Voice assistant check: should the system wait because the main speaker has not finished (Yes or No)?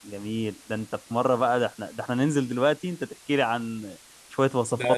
No